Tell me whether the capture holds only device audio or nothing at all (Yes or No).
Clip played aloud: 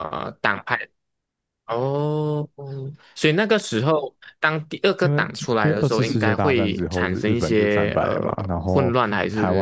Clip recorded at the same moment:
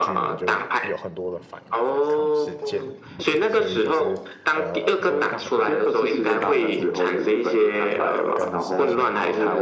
No